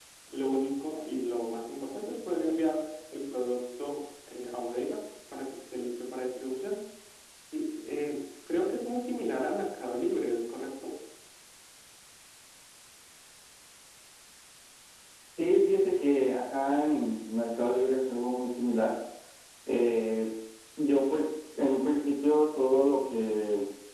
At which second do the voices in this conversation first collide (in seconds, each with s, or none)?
none